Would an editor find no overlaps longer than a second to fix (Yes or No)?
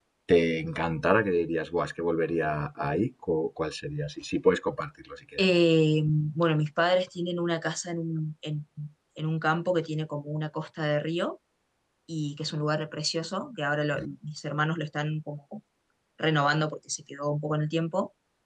Yes